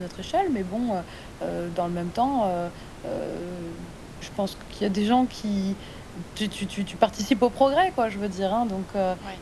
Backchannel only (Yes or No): Yes